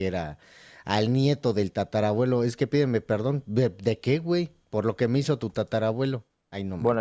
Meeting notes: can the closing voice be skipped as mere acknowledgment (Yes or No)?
No